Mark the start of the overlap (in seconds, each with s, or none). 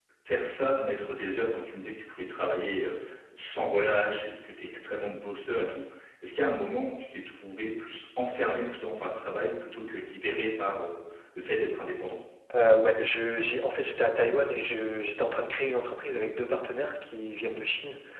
none